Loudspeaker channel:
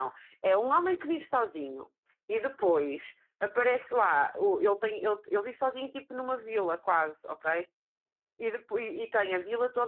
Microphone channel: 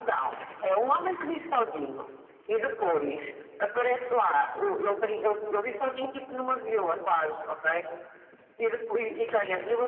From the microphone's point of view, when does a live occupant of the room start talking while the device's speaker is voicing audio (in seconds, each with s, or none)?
none